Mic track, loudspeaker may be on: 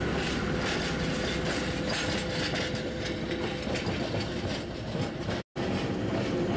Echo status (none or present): none